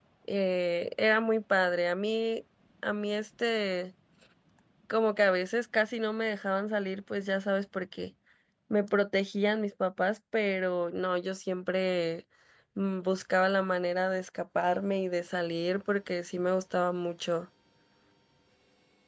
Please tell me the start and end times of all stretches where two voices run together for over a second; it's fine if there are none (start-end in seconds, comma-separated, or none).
none